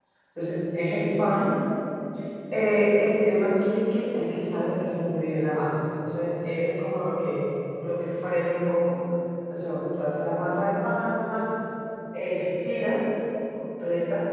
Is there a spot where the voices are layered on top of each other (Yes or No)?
No